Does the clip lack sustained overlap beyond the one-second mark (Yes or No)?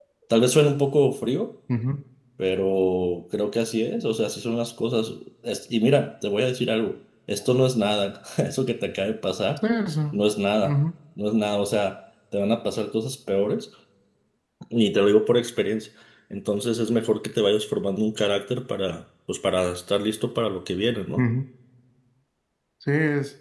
Yes